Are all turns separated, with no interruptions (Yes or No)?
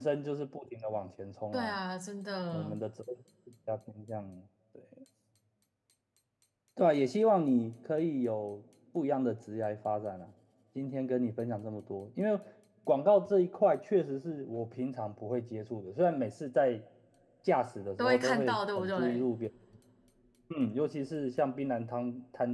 No